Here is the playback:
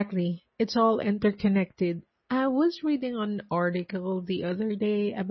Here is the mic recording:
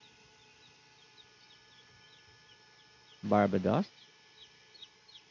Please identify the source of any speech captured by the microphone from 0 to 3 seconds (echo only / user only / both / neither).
neither